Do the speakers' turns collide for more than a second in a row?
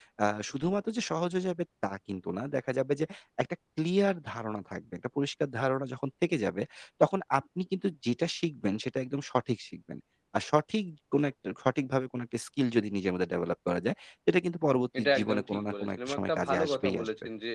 Yes, from 14.9 s

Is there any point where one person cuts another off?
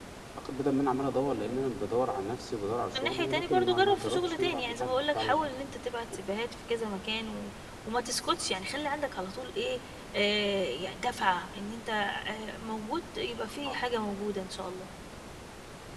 Yes, from 2.9 s

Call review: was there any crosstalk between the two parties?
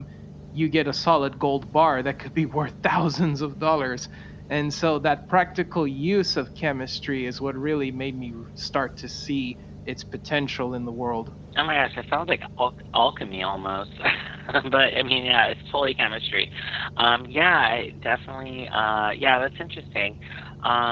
No

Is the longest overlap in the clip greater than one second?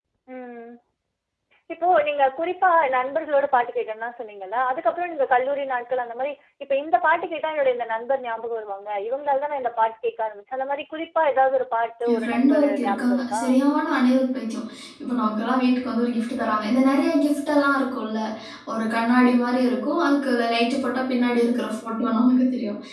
Yes, from 12.1 s

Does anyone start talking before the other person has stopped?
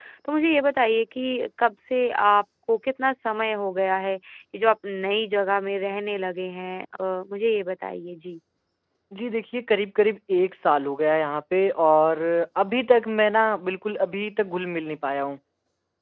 No

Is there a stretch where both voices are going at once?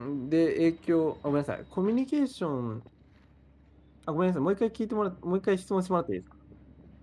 No

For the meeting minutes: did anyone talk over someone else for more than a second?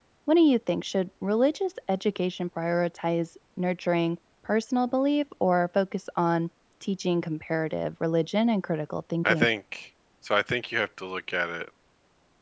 No

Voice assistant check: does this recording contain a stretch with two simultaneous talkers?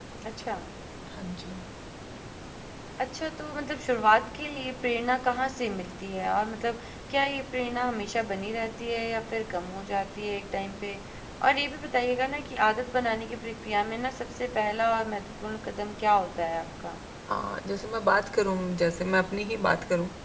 No

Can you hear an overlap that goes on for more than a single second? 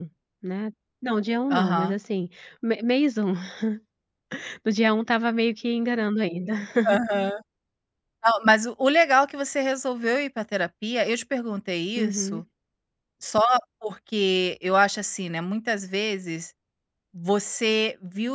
No

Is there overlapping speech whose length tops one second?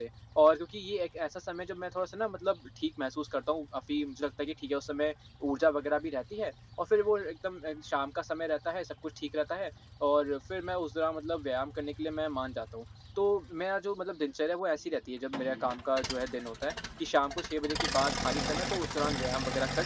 No

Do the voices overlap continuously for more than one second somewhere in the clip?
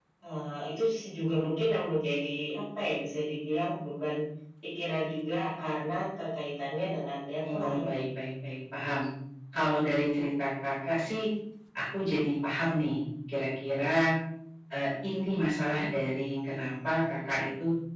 No

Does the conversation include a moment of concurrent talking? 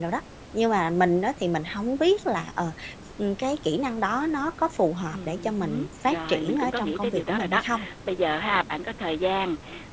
Yes, from 5.1 s

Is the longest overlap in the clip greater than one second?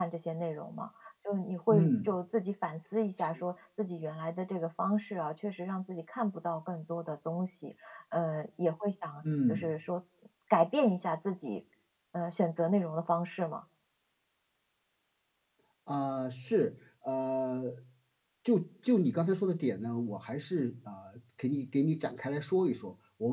No

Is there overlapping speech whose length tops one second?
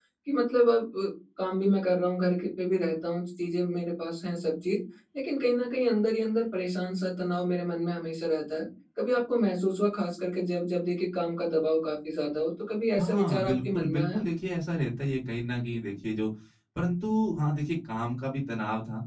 Yes, from 13.0 s

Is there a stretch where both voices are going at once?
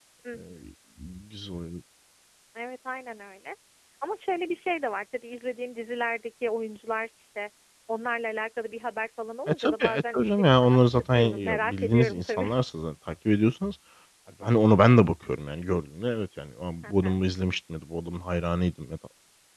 Yes, from 9.5 s

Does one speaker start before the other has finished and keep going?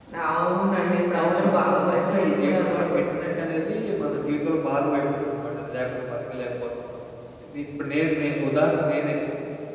Yes, from 1.2 s

